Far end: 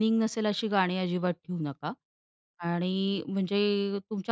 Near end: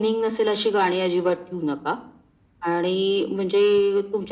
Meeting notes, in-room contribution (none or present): none